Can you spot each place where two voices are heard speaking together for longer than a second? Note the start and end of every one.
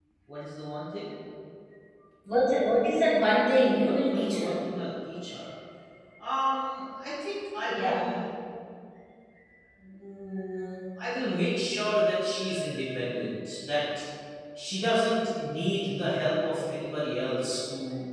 3.4-4.7

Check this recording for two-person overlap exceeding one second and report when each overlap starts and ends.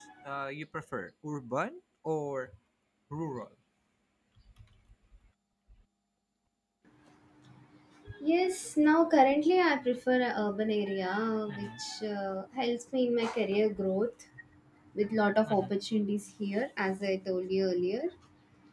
none

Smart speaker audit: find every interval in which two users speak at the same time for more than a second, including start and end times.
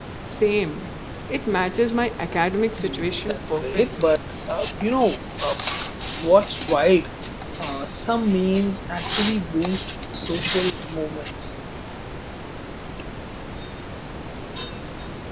2.8-4.0

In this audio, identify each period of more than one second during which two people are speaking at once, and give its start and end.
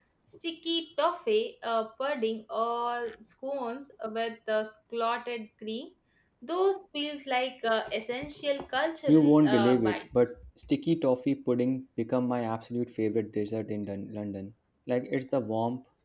9.1-10.3

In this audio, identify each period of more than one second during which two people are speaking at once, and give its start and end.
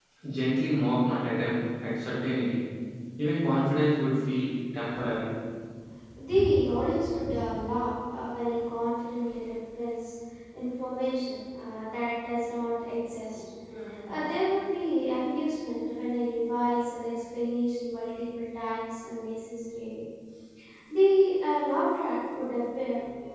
none

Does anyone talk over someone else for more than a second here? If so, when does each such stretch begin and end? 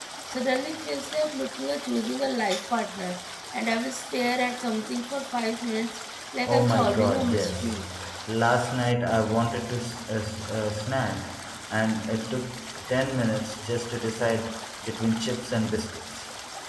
6.5-7.8

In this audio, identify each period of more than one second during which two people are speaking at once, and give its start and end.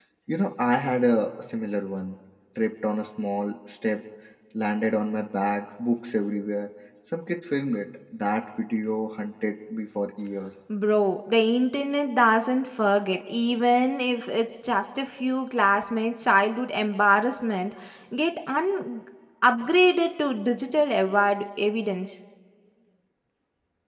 none

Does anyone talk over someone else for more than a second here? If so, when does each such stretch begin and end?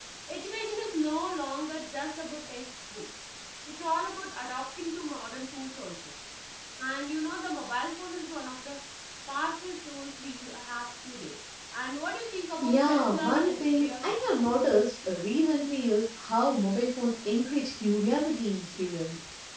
12.6-14.1

